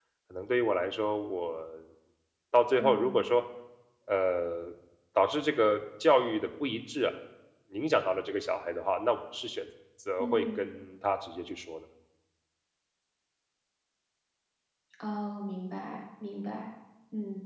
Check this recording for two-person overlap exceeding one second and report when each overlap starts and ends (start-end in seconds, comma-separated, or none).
none